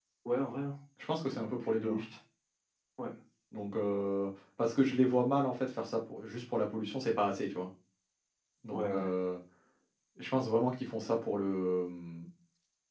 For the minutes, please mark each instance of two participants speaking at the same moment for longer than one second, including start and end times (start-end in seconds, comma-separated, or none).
none